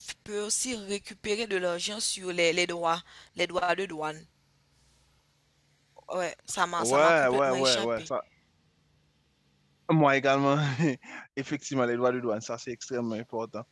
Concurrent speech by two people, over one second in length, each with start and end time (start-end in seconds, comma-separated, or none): 6.8-8.1